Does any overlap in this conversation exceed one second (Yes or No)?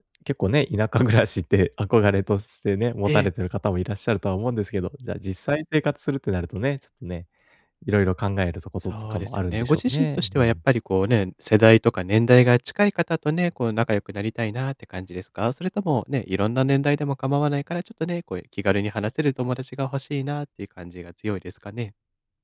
Yes